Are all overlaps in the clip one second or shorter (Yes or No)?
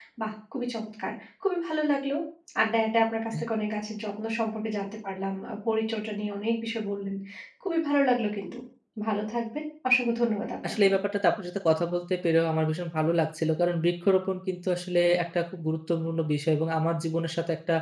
Yes